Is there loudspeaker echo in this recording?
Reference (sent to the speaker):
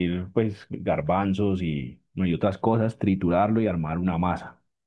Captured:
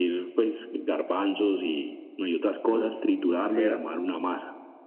Yes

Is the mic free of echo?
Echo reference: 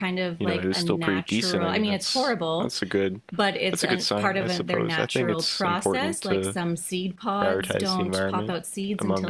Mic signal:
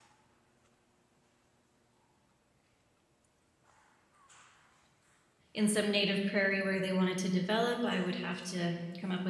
Yes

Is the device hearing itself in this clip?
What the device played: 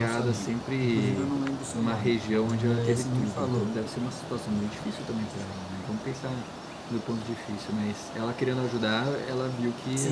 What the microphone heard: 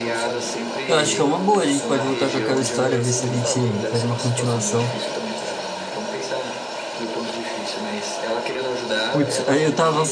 Yes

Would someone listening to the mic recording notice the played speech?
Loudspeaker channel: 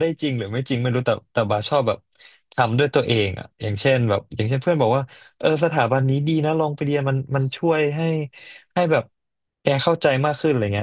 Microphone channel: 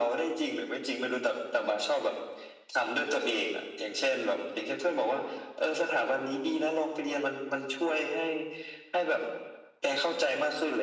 Yes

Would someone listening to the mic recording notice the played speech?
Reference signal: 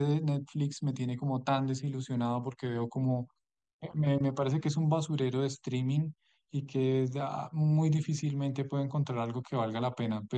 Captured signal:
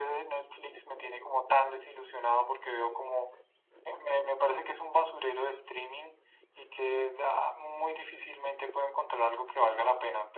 Yes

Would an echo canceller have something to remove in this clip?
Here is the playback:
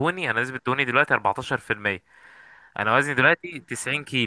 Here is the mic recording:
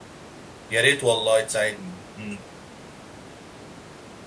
No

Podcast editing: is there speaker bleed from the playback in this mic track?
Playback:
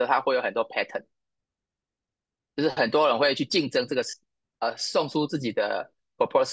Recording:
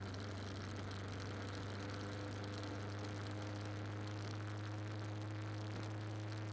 No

